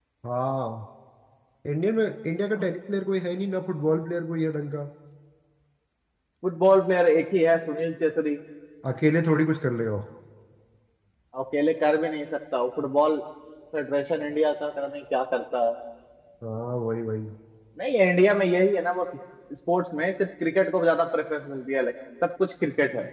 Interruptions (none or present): none